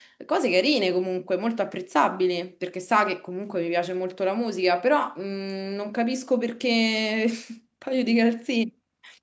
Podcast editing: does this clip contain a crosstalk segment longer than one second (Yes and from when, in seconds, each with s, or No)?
No